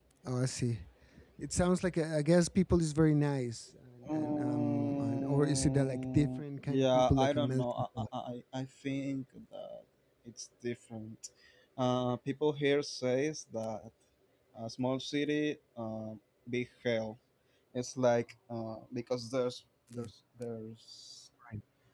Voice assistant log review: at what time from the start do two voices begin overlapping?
4.0 s

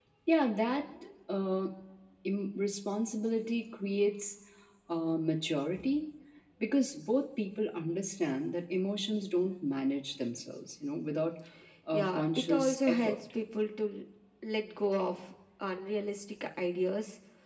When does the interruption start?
11.9 s

